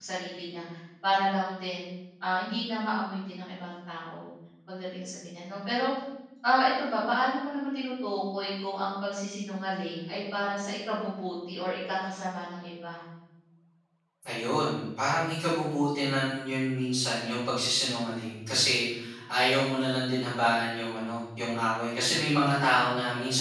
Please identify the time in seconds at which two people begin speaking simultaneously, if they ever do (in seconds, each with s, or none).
none